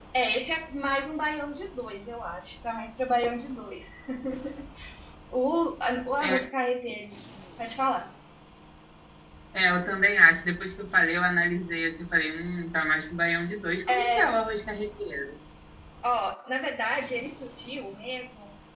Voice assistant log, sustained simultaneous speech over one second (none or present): none